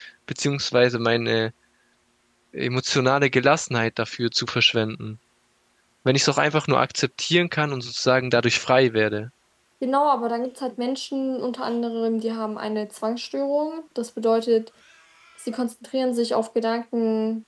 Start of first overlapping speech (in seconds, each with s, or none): none